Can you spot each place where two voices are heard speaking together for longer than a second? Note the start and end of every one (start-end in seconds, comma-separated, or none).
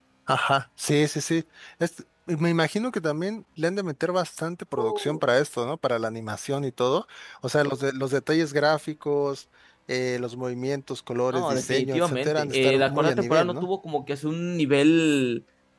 11.3-13.7